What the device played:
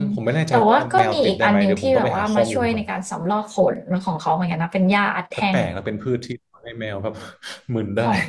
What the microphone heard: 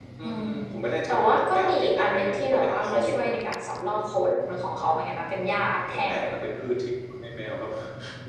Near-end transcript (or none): none